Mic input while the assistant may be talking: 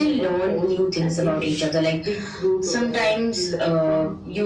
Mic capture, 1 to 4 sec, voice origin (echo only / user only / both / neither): echo only